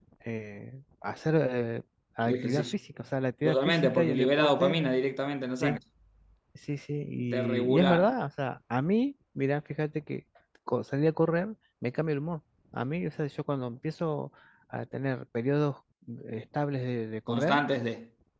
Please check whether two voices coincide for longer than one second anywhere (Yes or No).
Yes